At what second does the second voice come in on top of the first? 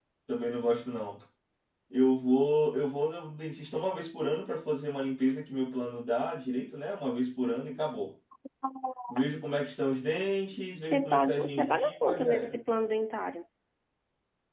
11 s

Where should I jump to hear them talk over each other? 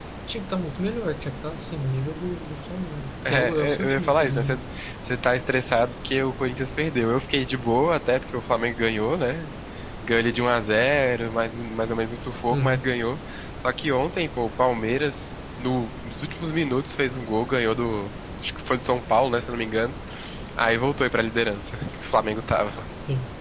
3 s

